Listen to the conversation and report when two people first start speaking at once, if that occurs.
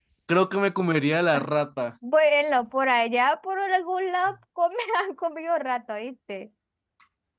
none

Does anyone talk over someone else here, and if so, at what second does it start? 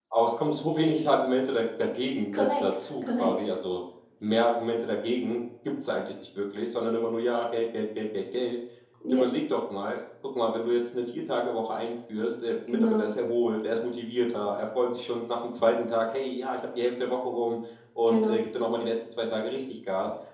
2.3 s

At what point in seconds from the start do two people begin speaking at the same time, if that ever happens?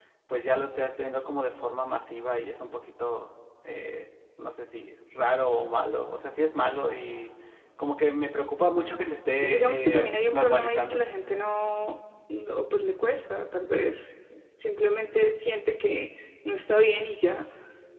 9.4 s

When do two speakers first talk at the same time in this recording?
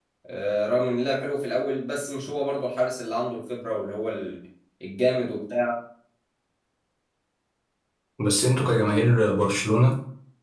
none

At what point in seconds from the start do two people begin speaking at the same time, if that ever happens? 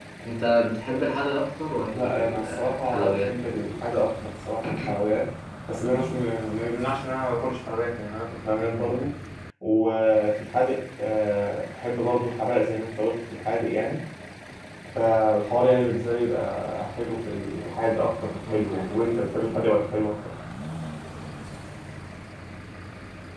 1.9 s

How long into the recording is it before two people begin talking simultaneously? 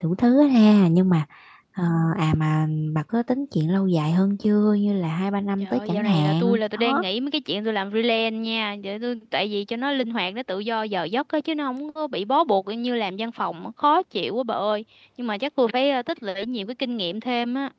5.6 s

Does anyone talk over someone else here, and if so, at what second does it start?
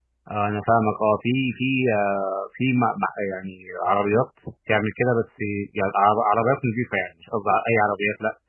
none

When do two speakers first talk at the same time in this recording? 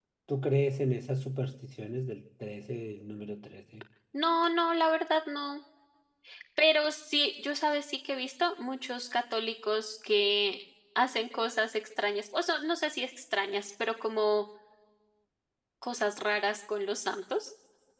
none

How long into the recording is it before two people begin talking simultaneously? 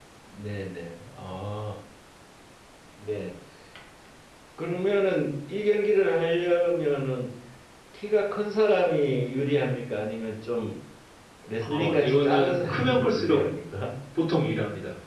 11.8 s

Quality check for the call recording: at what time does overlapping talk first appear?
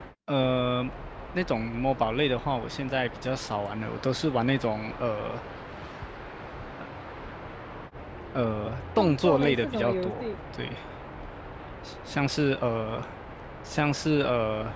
9.0 s

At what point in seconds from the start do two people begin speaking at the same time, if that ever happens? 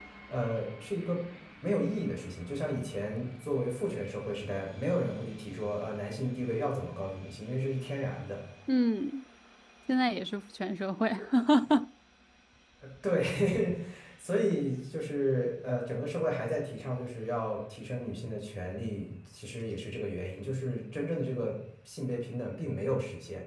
none

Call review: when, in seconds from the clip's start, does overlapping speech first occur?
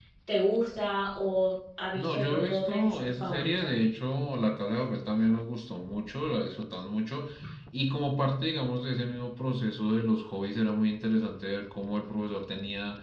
1.9 s

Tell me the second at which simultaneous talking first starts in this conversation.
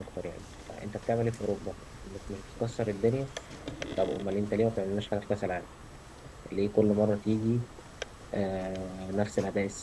none

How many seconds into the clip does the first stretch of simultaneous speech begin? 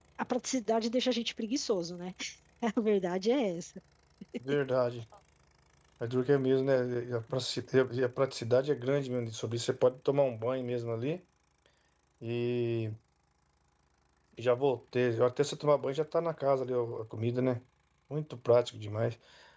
none

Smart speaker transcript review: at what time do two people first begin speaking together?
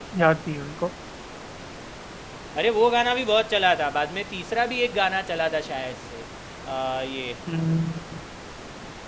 none

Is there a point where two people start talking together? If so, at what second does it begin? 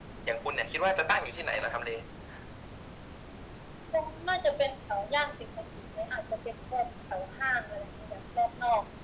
none

